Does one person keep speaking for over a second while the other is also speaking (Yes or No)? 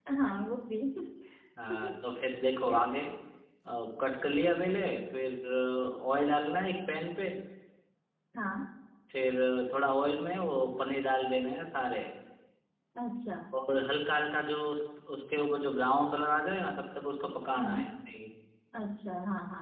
No